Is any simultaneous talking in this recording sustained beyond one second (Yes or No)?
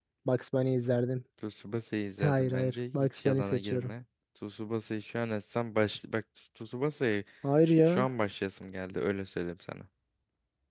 Yes